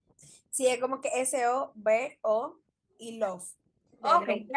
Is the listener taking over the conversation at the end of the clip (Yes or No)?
Yes